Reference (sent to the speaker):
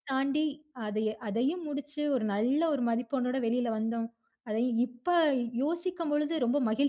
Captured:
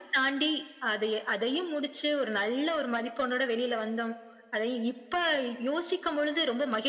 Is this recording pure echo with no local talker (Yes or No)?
Yes